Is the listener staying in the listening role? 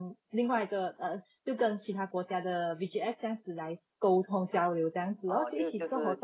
No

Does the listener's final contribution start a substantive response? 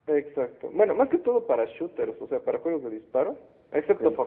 No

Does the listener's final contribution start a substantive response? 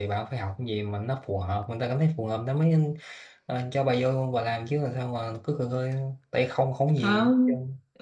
Yes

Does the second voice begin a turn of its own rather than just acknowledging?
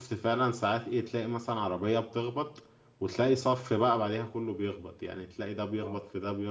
No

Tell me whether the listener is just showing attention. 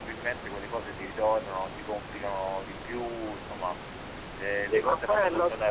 No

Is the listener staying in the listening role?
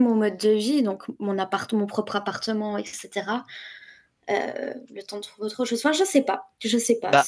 No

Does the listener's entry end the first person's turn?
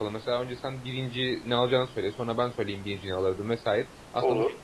No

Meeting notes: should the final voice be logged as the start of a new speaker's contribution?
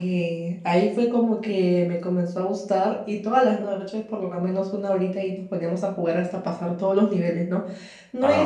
No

